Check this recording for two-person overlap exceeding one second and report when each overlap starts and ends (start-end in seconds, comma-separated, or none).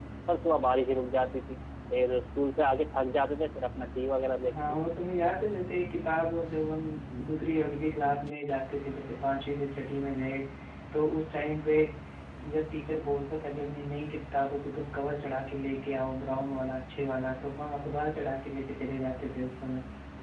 none